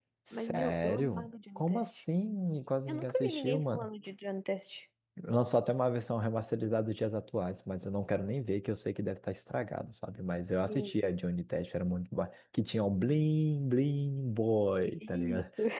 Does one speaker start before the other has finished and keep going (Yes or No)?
Yes